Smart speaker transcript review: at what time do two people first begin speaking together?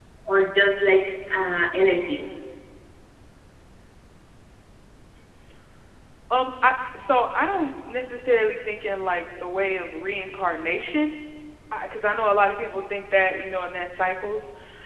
none

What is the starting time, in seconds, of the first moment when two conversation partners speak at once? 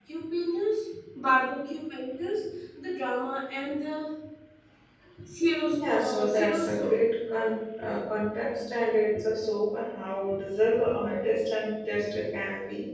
5.6 s

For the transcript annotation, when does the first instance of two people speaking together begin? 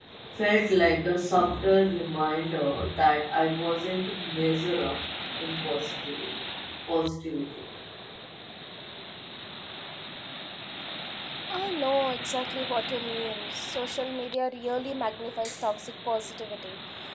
none

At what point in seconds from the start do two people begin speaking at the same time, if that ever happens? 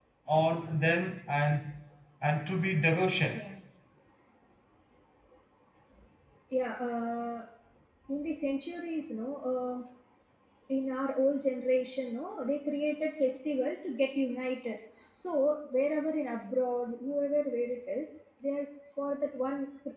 none

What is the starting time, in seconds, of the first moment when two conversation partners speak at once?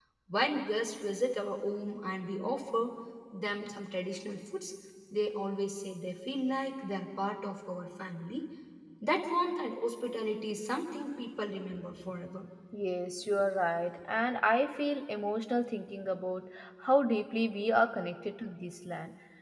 none

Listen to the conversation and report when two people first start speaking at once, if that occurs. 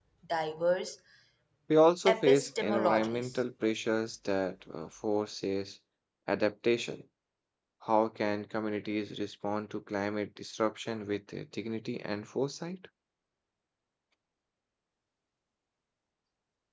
2.1 s

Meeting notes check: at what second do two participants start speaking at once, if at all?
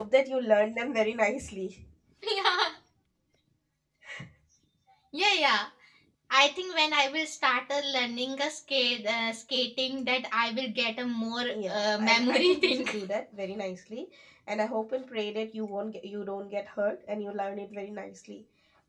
11.5 s

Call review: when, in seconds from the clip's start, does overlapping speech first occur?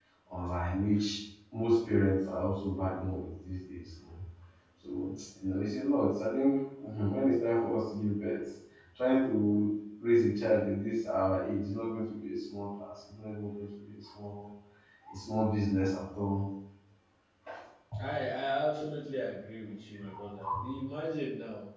none

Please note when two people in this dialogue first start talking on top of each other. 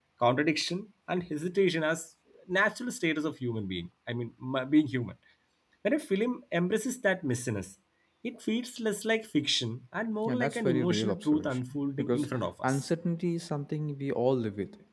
10.3 s

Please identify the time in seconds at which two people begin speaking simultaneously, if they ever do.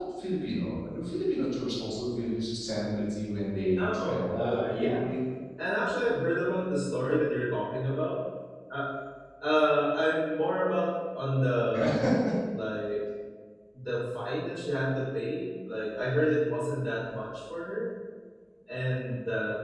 3.8 s

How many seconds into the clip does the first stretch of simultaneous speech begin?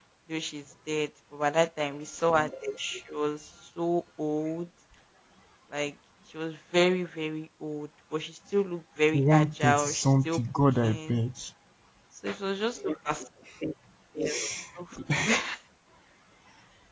9.1 s

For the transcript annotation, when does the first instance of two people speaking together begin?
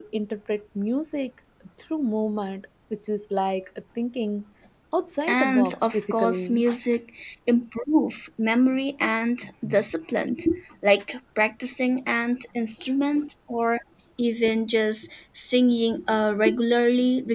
5.3 s

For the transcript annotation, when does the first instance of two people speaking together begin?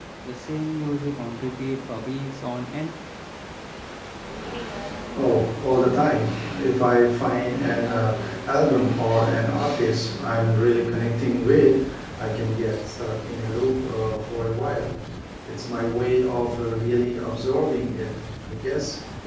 none

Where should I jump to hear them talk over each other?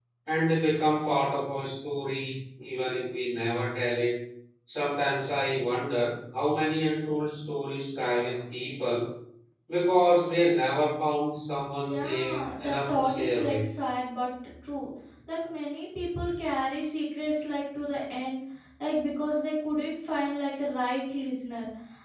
11.8 s

